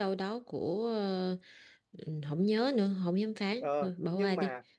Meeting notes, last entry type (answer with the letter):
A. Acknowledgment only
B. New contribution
B